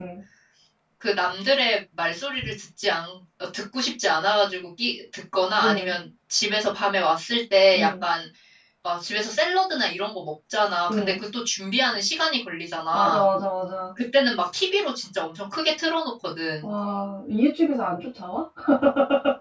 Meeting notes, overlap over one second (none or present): none